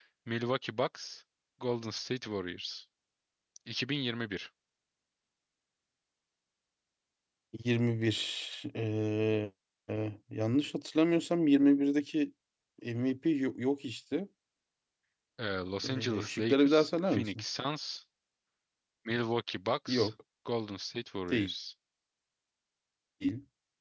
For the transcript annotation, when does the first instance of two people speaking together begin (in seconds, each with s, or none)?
15.8 s